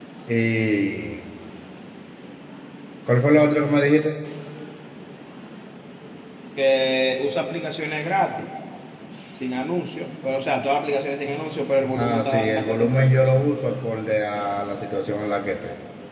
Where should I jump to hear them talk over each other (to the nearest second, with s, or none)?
12 s